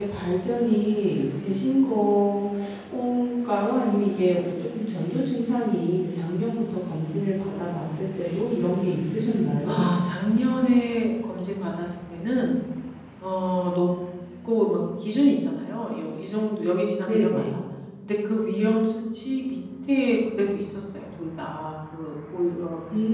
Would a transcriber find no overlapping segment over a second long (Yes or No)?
Yes